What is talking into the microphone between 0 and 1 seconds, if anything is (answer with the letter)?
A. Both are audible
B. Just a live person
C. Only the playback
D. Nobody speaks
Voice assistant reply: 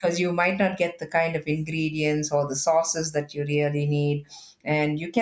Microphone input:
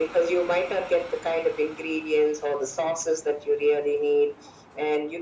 C